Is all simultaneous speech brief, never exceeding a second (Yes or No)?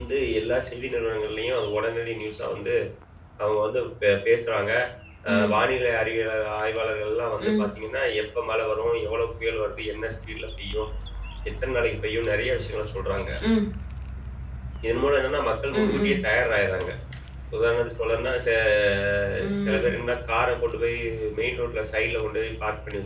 Yes